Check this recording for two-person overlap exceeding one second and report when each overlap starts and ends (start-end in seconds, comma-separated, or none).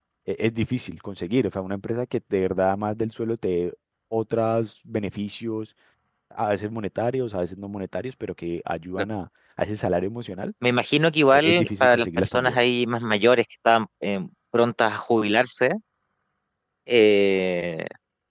11.3-12.6